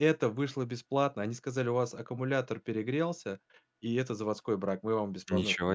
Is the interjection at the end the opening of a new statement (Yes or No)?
Yes